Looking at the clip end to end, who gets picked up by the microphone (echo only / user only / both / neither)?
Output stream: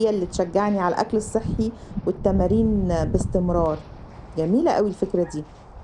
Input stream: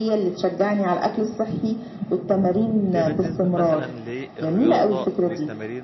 both